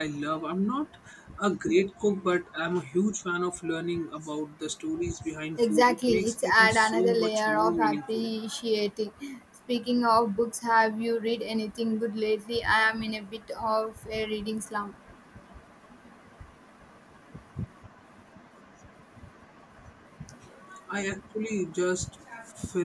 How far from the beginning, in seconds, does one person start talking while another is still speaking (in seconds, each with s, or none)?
5.6 s